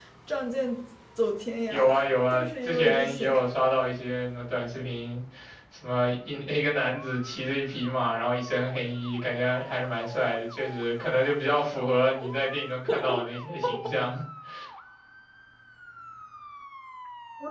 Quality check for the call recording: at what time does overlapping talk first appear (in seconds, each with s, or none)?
1.7 s